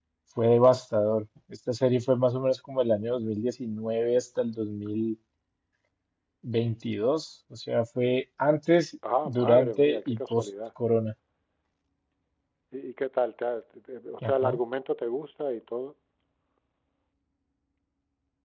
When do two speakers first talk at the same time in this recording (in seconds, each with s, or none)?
9.2 s